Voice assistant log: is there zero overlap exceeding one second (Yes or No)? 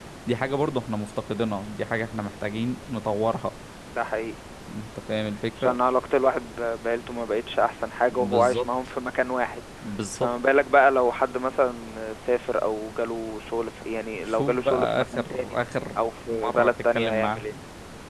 No